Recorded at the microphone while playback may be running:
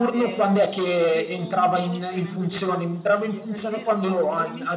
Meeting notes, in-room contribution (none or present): present